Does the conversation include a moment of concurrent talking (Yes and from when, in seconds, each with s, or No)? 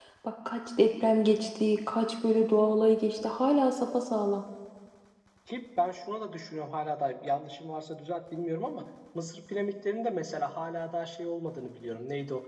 No